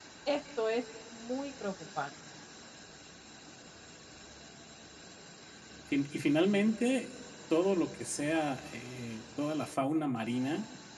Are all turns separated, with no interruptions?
Yes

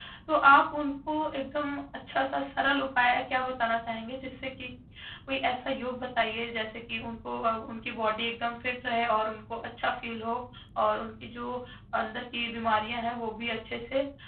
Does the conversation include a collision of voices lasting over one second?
No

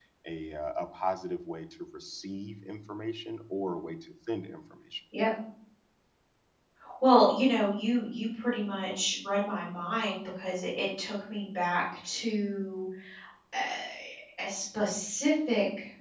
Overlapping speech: No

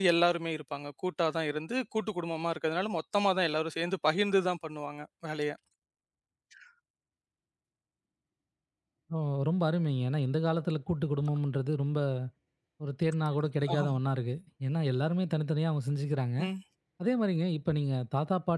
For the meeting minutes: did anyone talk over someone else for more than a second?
No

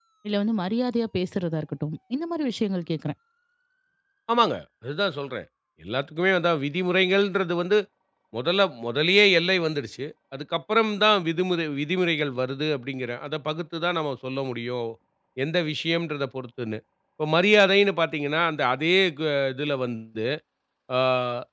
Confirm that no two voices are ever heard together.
Yes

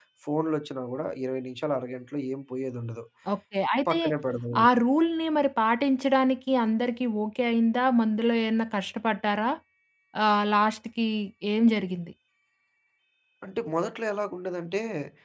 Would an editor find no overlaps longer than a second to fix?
Yes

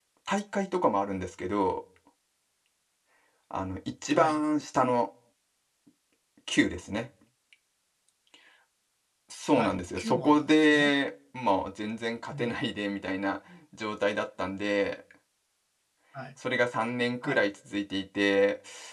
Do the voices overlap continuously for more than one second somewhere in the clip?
Yes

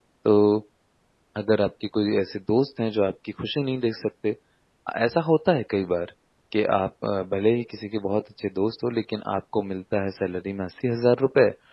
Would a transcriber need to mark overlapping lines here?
No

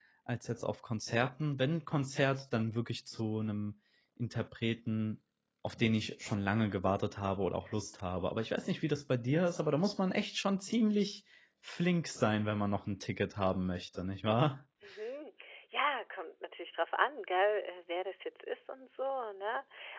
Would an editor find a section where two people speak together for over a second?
No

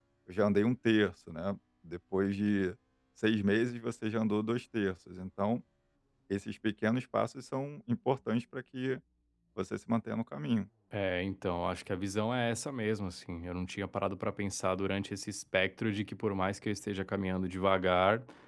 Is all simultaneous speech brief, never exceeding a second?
Yes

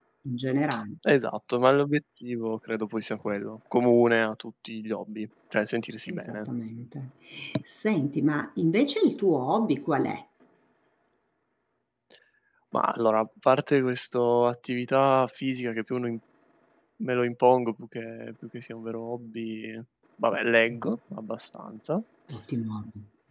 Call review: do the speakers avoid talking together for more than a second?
Yes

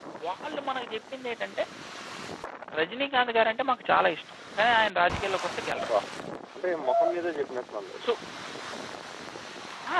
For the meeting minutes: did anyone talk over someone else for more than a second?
No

